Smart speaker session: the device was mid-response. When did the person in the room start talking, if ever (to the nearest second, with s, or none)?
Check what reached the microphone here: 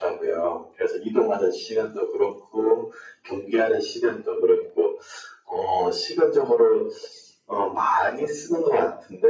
none